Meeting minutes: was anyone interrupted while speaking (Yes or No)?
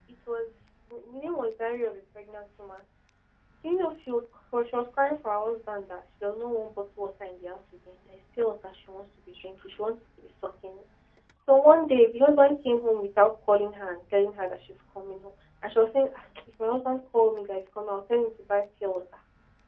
No